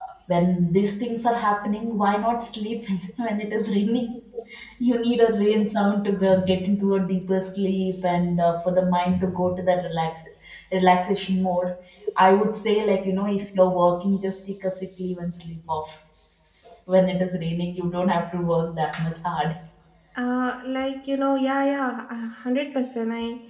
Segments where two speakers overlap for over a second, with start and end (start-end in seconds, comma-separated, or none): none